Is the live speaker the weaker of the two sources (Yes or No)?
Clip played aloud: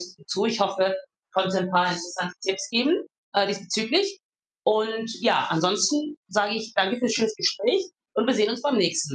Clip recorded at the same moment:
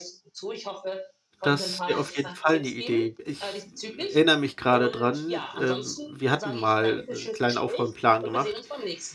No